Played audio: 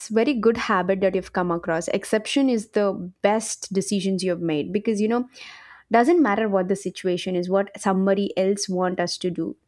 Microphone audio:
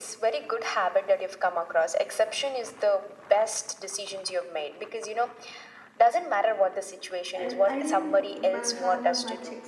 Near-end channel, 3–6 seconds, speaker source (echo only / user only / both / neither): echo only